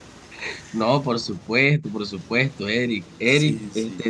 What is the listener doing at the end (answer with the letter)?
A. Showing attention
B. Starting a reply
A